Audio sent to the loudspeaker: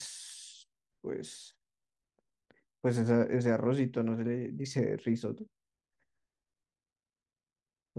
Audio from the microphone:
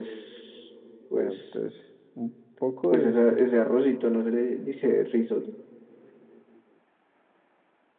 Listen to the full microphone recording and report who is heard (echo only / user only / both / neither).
both